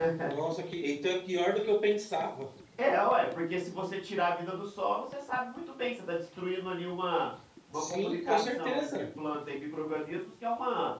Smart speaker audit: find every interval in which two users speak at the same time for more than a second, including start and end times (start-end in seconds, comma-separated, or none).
7.7-9.0